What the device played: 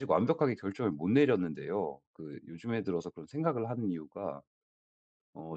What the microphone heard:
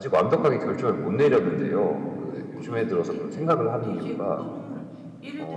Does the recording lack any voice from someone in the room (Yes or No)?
No